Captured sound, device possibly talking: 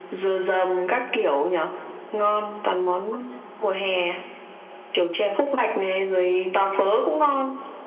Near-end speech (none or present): none